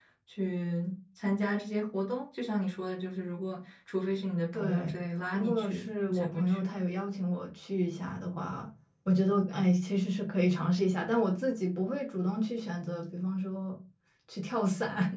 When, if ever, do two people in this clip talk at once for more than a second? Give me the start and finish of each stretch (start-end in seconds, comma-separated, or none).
5.3-6.8